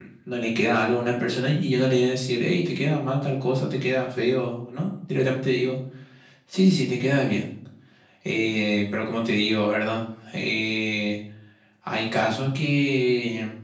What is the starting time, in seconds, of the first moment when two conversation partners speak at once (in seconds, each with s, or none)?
none